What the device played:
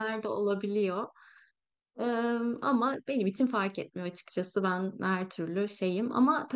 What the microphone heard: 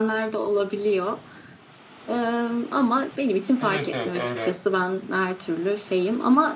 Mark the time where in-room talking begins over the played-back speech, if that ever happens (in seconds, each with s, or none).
3.6 s